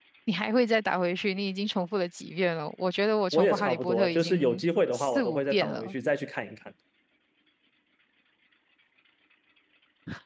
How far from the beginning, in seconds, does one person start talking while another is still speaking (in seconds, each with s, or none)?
3.3 s